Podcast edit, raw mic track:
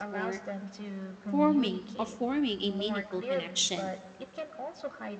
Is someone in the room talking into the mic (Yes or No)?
Yes